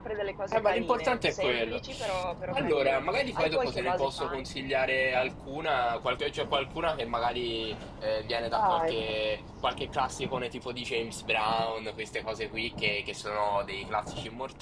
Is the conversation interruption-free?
No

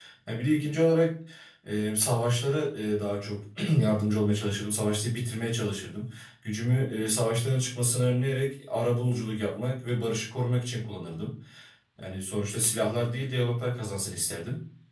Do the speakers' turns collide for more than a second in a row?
No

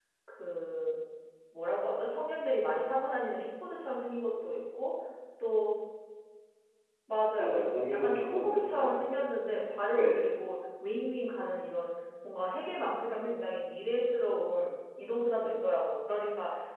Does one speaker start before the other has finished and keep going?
Yes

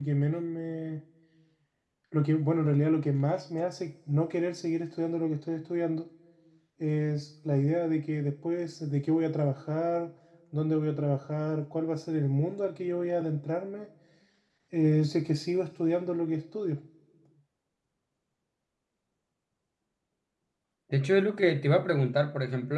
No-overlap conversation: Yes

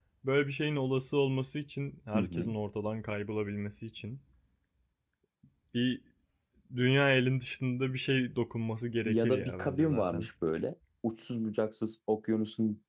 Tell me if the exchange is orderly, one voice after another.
No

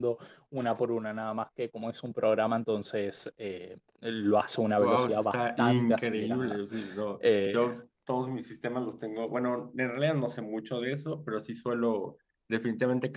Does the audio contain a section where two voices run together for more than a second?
Yes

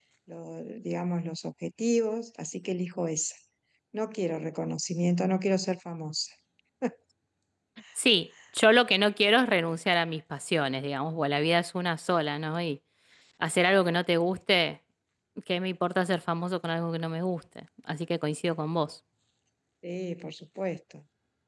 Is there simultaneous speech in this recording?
No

